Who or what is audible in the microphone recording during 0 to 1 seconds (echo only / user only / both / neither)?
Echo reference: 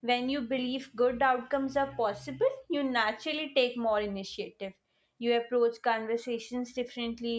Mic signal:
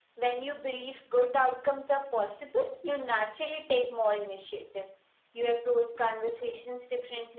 echo only